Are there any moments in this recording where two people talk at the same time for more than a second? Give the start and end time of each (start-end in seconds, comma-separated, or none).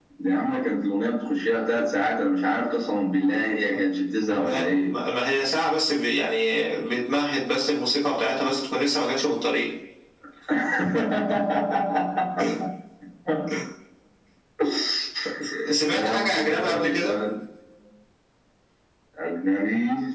15.9-17.2